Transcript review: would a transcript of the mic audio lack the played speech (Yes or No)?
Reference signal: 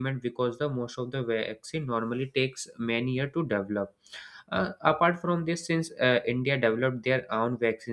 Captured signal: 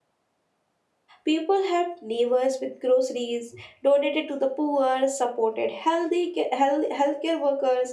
Yes